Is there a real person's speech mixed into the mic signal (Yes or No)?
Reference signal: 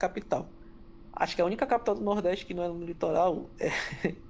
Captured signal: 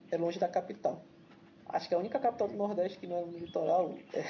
No